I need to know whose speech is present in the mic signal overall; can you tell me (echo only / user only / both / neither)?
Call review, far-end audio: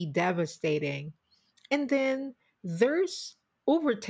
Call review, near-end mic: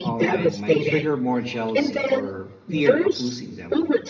both